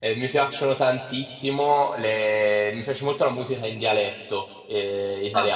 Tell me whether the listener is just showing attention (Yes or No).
Yes